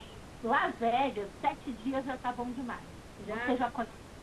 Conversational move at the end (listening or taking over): listening